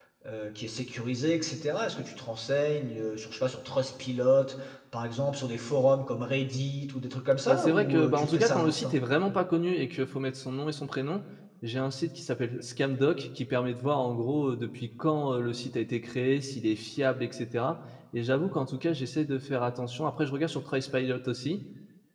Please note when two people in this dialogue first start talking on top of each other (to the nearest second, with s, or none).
7 s